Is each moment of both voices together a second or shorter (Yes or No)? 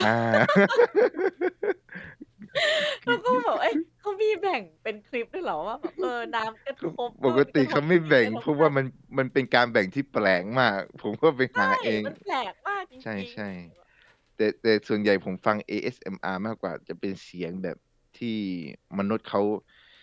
No